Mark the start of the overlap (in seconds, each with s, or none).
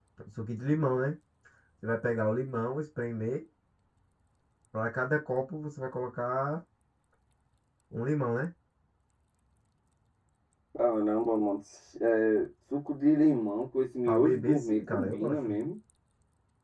14.1 s